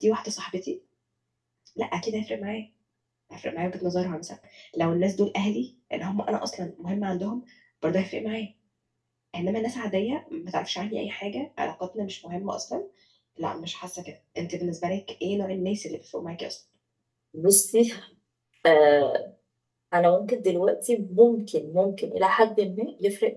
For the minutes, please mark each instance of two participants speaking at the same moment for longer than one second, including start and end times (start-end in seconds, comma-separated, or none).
none